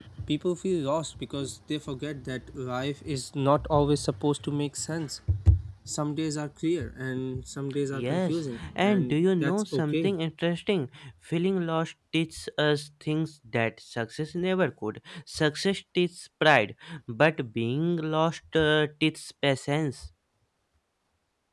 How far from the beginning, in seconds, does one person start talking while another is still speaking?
7.9 s

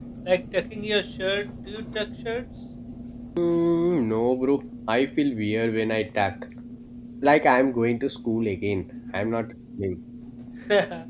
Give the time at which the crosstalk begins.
none

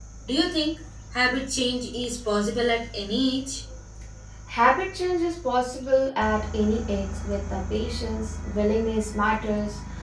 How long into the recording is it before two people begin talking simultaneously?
none

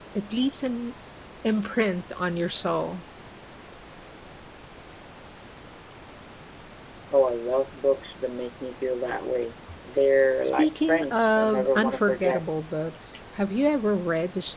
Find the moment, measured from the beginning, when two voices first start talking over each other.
10.4 s

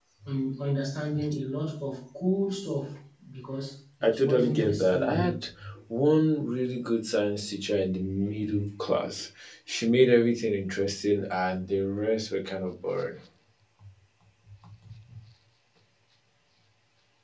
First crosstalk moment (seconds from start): 4.0 s

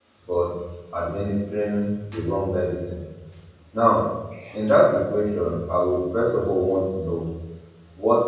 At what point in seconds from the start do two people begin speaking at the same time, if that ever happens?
none

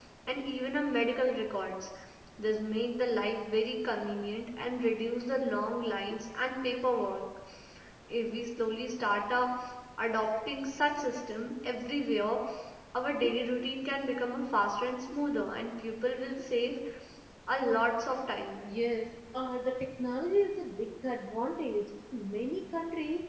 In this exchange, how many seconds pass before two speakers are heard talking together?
none

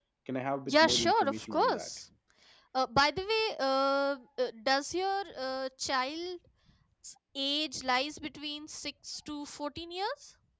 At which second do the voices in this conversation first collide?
0.7 s

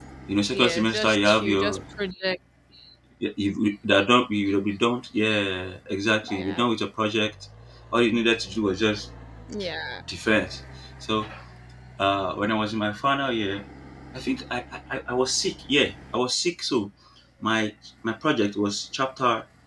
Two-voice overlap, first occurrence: 0.5 s

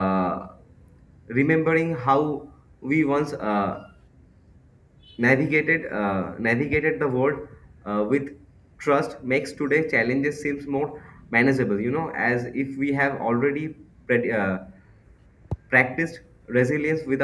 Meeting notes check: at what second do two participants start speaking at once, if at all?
none

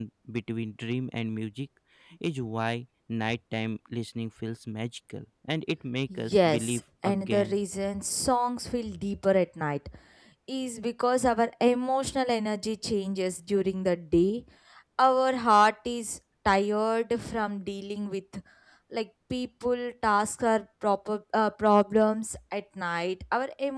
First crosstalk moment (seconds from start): 6.1 s

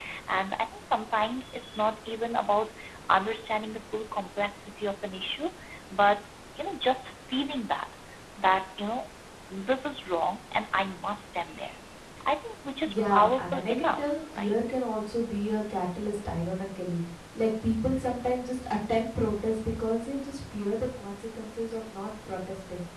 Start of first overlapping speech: 12.8 s

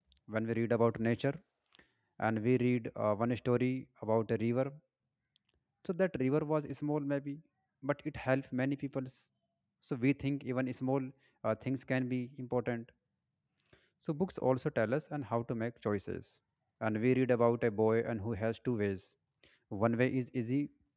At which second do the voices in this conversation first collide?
none

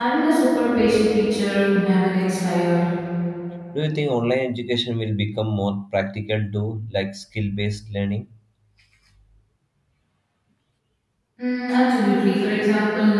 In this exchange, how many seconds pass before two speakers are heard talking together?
none

